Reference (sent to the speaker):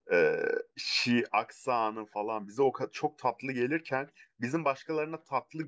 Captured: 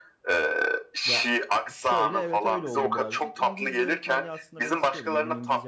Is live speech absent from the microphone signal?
No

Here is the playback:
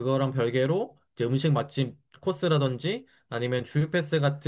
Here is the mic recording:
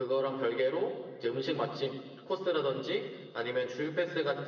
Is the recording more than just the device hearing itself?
No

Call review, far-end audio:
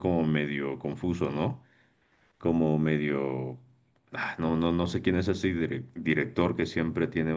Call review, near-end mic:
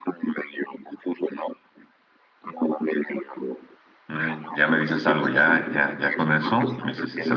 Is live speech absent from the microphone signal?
No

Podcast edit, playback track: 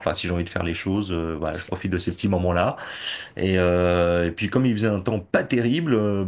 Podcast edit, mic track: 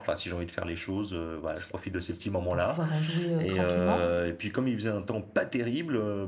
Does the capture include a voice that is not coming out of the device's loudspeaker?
Yes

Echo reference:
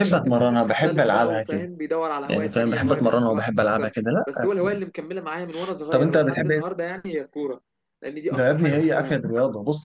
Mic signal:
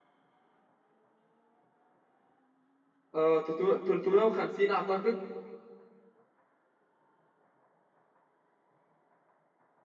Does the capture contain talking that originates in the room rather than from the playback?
Yes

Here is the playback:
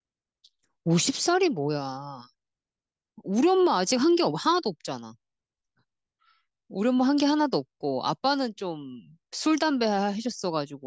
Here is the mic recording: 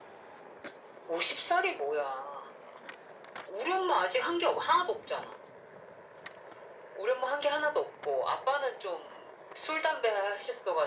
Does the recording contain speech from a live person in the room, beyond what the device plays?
No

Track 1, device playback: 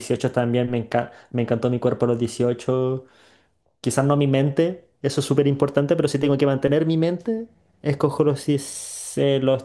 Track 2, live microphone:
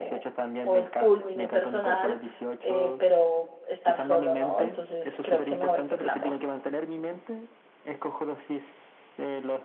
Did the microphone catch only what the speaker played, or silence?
No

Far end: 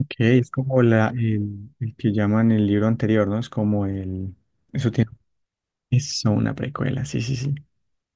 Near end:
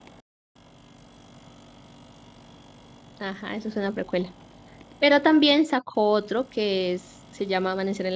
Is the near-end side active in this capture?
Yes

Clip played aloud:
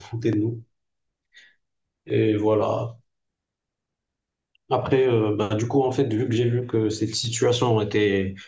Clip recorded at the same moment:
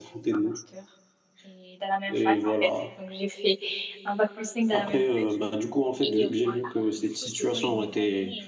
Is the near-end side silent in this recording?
No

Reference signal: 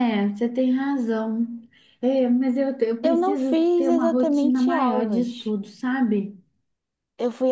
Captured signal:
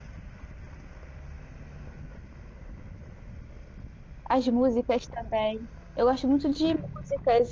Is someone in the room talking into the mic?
Yes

